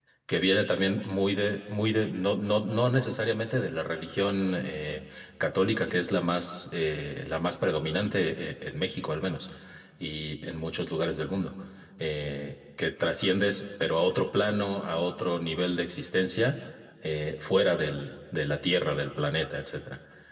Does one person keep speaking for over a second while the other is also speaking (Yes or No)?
No